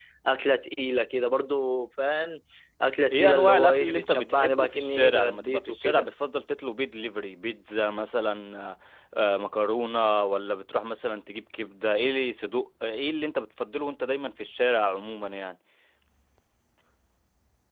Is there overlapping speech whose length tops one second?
Yes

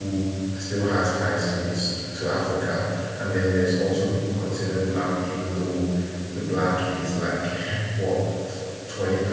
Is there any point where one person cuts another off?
No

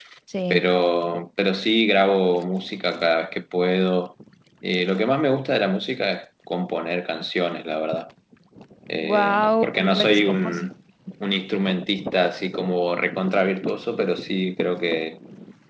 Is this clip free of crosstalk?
No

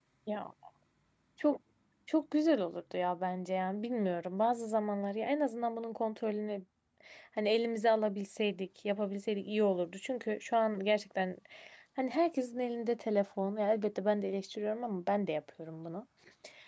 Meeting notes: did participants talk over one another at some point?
No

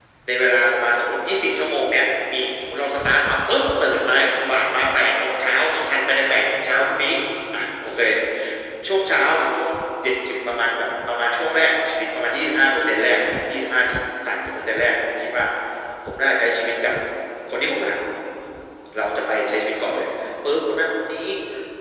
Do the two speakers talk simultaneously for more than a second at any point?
No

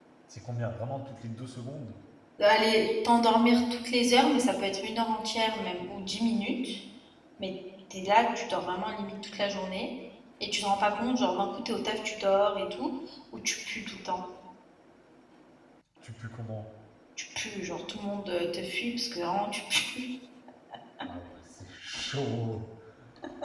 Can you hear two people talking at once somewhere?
No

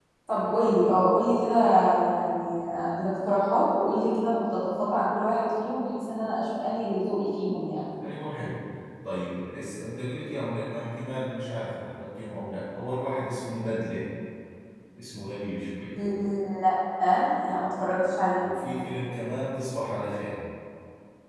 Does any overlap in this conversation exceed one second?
No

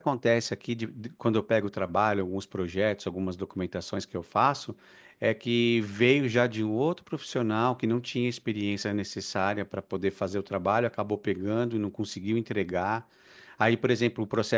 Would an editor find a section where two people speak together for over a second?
No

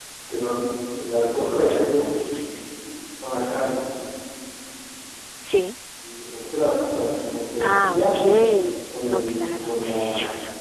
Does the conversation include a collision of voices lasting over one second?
Yes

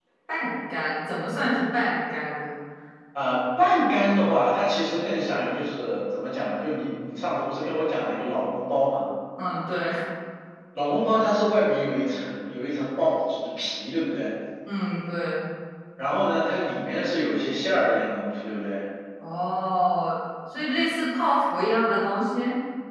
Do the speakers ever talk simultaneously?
No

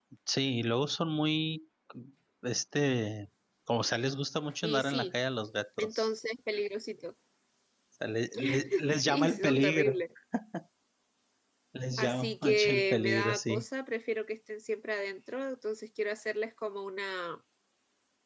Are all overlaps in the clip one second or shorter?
No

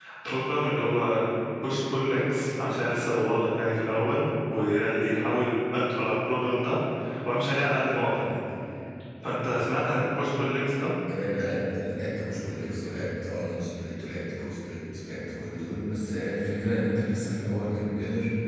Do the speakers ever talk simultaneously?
No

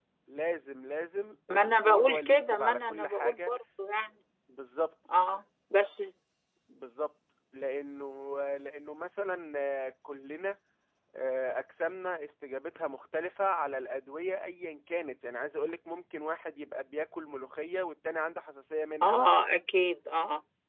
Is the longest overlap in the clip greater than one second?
Yes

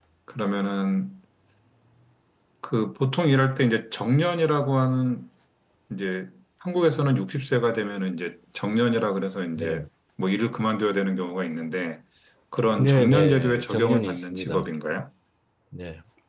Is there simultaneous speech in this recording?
Yes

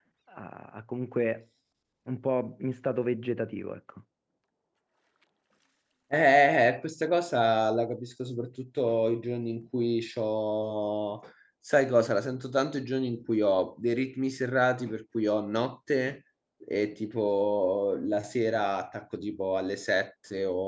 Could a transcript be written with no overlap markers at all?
Yes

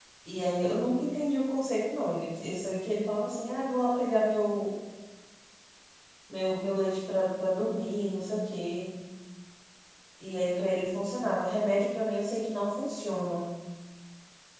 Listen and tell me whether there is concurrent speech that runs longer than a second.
No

